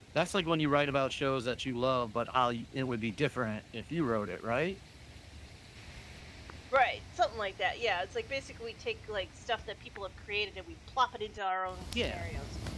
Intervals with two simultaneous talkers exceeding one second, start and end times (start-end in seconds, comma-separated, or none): none